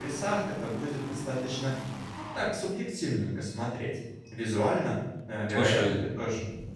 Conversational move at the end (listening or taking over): listening